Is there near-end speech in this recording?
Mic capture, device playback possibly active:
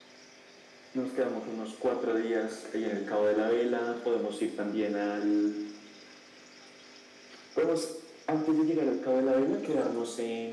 No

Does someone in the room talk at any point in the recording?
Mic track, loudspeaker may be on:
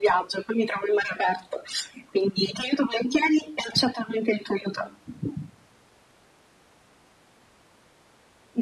No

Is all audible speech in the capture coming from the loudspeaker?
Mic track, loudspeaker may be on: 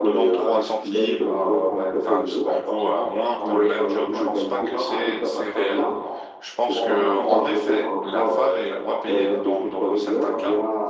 No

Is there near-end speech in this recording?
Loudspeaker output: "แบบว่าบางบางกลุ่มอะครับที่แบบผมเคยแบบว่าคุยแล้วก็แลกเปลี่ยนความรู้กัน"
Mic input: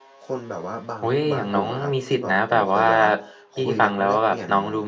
Yes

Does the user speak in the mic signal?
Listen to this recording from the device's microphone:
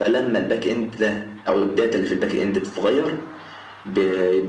No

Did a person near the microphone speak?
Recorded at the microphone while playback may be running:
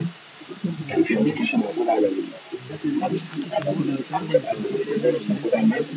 Yes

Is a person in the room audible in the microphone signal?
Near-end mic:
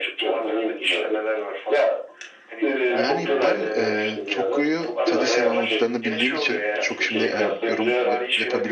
Yes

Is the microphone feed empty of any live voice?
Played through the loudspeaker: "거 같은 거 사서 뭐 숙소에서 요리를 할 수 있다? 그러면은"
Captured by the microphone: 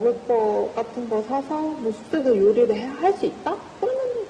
Yes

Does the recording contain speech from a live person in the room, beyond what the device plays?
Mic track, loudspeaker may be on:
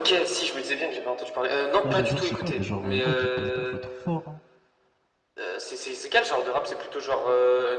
Yes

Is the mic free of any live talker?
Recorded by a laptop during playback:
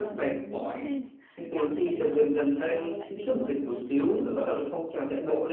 No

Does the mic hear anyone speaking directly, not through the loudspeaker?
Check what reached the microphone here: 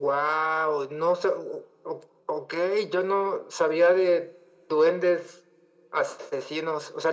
No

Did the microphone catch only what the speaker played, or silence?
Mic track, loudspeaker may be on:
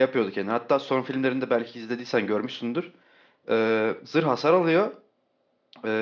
No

